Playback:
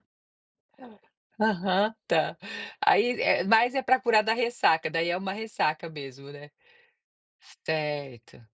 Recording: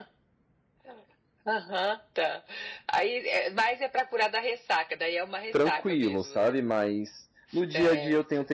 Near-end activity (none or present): present